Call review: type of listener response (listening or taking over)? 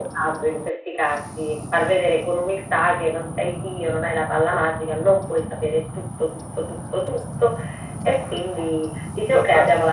listening